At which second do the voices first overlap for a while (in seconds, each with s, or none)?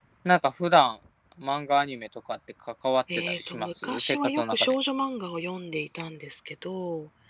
3.1 s